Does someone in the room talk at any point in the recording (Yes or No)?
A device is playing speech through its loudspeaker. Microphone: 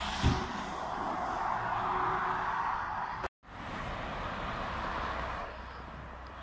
No